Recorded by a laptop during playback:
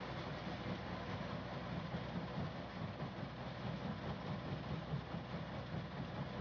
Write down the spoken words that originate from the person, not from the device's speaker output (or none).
none